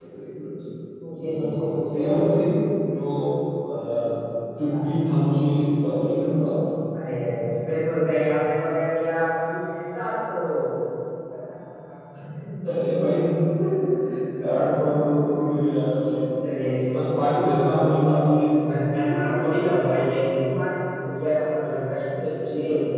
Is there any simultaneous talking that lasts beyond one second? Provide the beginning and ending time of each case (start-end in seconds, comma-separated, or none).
none